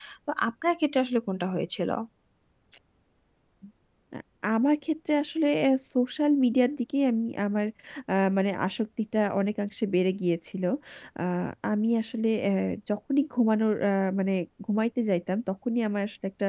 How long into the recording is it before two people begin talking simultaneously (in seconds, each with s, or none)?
none